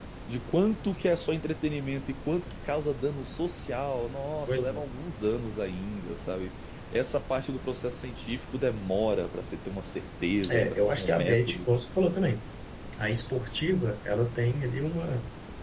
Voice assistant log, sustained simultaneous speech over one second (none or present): present